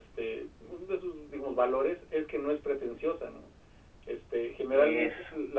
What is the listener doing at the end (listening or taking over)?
listening